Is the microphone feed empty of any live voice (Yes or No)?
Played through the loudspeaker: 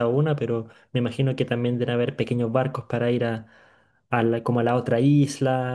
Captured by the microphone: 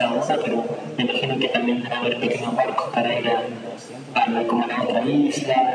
No